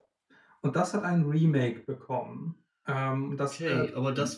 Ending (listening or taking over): taking over